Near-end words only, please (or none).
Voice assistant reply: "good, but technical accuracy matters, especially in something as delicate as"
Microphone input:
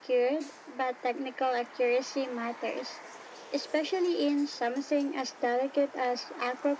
none